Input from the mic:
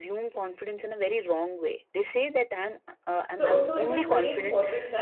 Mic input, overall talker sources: both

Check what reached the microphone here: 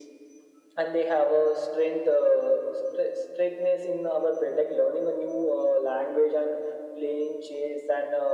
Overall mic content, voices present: echo only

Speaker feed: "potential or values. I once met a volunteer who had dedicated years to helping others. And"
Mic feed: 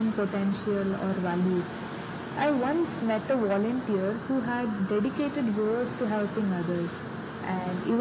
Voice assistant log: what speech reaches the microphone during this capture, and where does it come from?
echo only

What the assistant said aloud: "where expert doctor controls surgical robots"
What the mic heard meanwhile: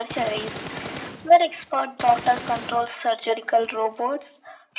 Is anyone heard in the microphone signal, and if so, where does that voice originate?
echo only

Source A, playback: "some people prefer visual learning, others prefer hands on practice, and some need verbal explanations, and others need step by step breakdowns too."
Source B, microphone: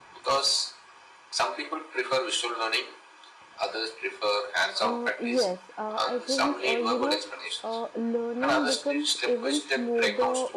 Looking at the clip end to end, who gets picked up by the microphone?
both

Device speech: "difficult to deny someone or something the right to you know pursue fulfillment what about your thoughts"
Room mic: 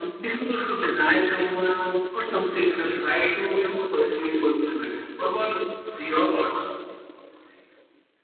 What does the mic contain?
echo only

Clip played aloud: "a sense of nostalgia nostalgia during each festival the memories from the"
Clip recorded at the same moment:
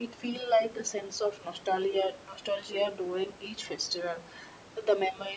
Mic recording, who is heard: echo only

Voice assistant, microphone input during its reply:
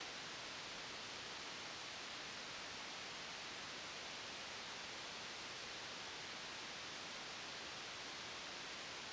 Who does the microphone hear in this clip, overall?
neither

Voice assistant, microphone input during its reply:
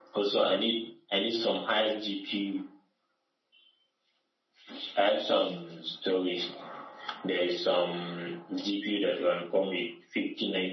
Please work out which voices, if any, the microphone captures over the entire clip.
echo only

